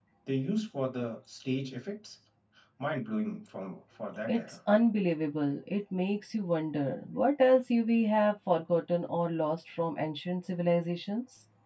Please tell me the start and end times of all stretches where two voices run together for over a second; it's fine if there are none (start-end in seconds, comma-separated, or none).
none